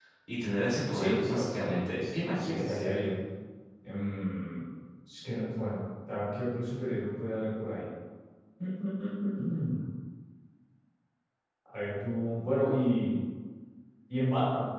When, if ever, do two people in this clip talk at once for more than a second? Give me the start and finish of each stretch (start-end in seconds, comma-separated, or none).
0.9-2.8